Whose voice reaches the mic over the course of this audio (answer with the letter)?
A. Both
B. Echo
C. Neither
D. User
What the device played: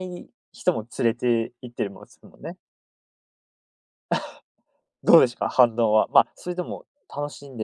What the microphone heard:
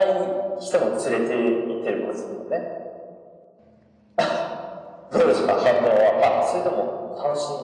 B